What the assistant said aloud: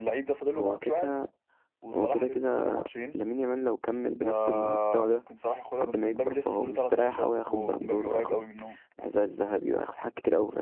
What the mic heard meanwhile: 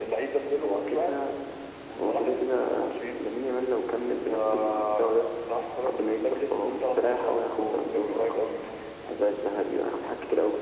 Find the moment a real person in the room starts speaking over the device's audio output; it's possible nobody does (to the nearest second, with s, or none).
none